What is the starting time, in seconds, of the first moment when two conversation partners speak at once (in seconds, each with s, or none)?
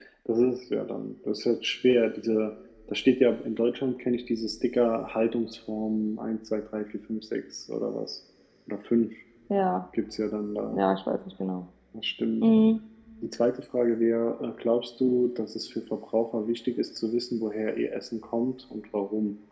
none